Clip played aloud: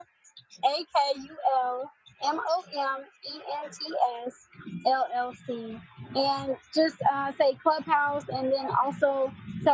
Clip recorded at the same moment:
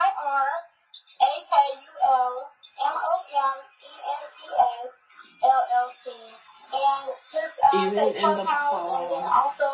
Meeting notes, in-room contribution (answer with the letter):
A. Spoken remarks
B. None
A